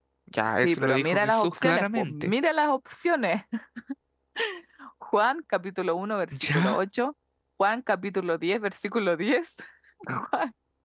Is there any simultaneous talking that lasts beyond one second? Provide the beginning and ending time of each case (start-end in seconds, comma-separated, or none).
0.6-2.3